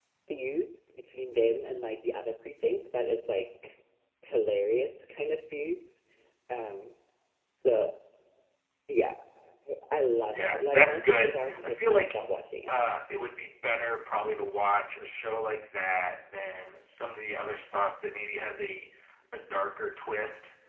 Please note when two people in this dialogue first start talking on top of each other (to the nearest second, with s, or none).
10 s